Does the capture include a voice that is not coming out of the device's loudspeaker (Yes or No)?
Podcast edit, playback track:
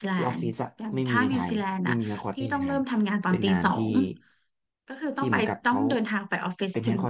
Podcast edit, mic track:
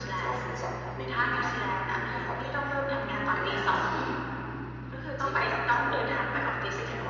No